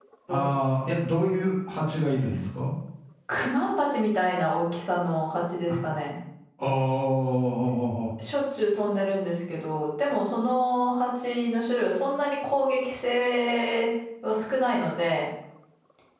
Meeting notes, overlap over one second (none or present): none